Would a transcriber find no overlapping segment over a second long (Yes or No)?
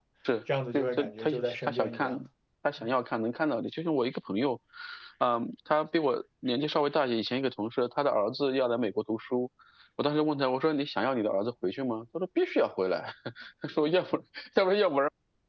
No